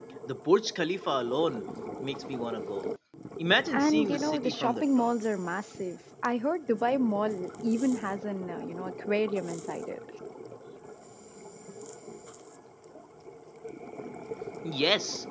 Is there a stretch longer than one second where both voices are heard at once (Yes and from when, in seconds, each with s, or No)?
Yes, from 3.7 s